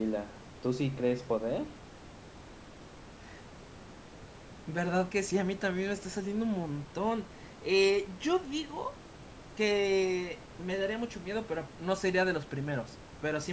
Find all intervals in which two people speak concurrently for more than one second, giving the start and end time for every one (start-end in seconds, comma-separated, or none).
none